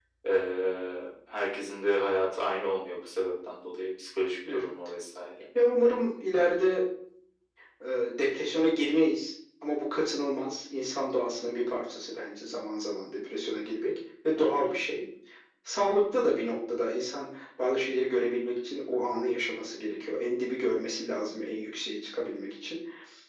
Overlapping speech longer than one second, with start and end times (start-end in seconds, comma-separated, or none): none